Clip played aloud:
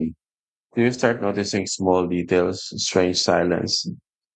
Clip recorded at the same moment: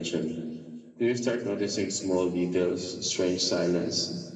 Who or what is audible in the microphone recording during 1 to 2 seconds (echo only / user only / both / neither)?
echo only